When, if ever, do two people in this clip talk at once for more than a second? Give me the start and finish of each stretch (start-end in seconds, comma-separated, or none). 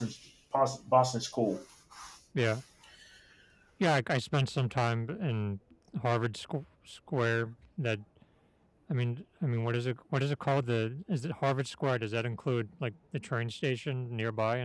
none